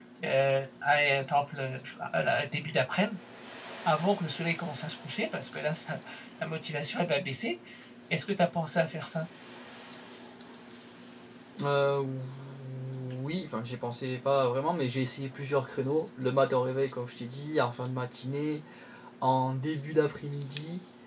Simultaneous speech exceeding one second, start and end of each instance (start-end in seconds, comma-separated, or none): none